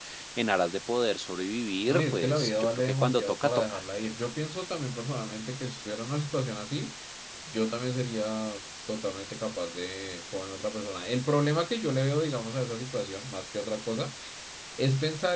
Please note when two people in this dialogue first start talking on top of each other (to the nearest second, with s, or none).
2 s